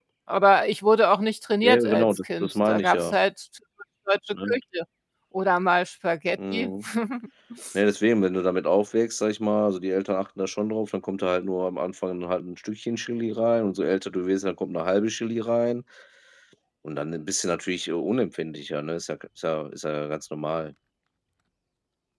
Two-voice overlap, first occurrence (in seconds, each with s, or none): 1.6 s